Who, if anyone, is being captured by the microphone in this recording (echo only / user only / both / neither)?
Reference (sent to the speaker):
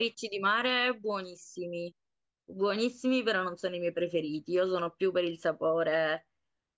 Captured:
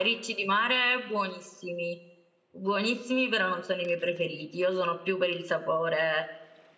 echo only